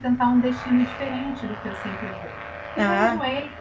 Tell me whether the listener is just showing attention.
Yes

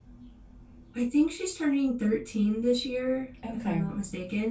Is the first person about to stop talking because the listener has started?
No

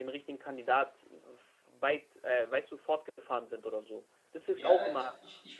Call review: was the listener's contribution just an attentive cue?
No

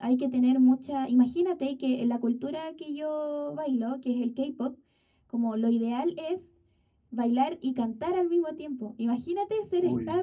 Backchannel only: Yes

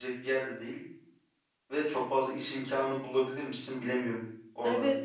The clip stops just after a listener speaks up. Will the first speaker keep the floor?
No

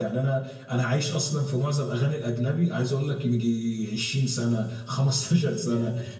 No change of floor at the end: Yes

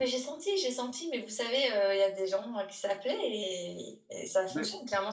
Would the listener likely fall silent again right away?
Yes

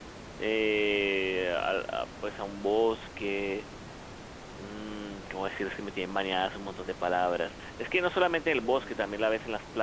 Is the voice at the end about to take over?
No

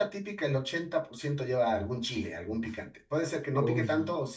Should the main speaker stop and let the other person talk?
No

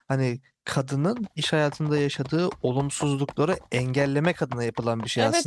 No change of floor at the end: No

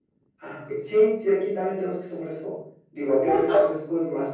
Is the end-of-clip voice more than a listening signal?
No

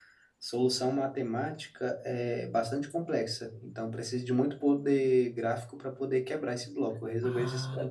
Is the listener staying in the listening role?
No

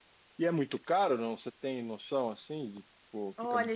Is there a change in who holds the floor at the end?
Yes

